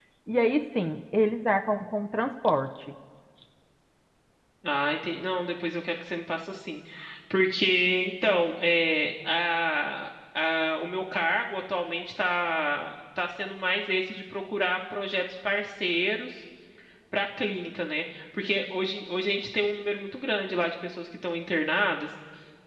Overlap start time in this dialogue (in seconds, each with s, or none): none